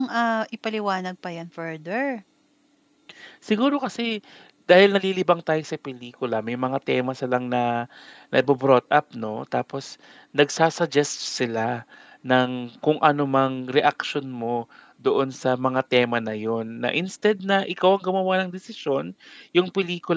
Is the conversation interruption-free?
Yes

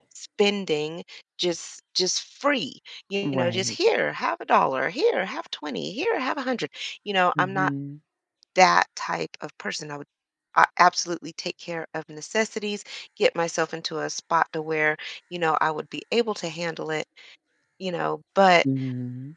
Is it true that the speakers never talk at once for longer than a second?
Yes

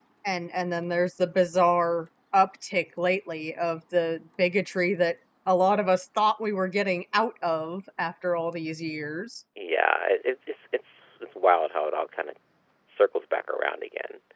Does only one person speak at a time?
Yes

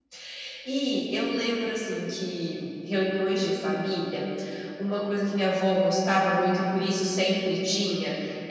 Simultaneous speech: No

